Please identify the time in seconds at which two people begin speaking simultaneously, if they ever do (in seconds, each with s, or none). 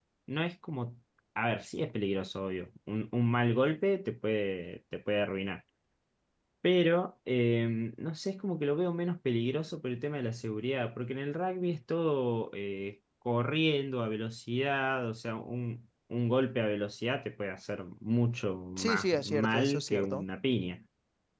18.8 s